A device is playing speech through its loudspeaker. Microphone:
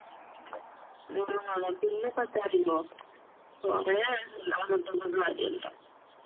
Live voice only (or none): none